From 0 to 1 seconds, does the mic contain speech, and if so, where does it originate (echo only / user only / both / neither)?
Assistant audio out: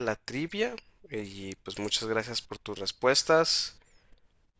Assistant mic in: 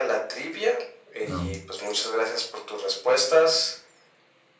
echo only